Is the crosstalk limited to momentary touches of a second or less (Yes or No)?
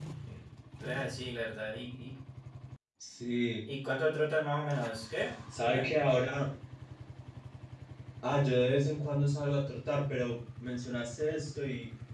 Yes